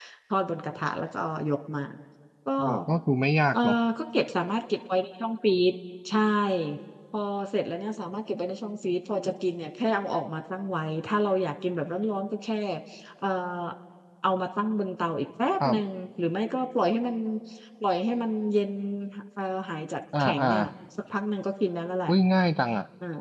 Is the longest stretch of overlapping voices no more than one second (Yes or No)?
Yes